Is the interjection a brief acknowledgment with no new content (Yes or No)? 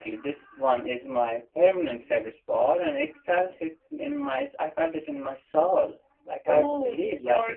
Yes